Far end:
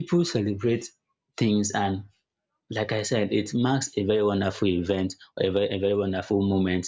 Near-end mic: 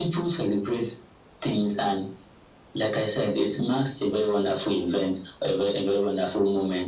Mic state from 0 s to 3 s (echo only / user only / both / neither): echo only